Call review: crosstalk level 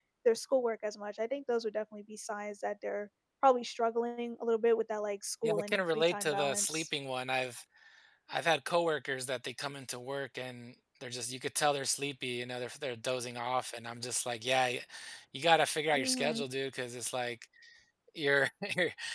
present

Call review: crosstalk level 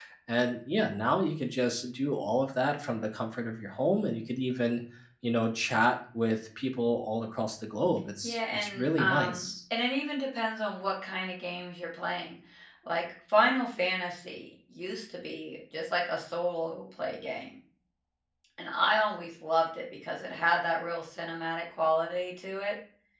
present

